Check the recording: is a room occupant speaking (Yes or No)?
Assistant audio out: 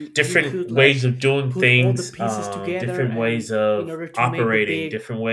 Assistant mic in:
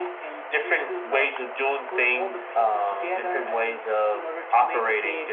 No